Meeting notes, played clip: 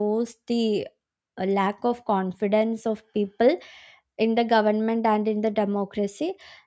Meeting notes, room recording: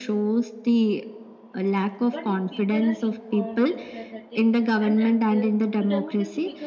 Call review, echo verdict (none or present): present